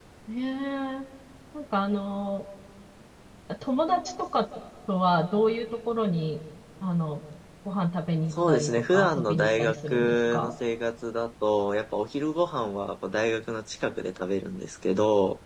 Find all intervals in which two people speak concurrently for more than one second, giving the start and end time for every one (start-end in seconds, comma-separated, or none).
8.3-10.5